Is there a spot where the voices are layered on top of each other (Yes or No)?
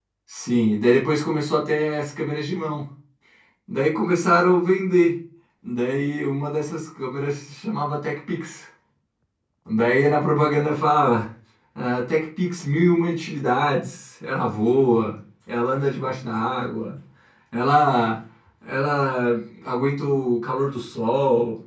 No